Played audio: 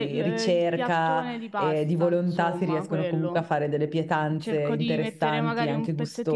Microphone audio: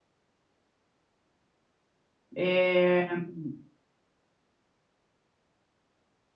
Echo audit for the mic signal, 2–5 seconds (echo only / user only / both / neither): user only